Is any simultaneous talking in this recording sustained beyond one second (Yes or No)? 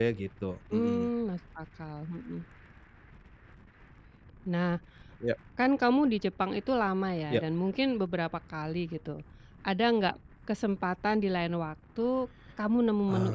No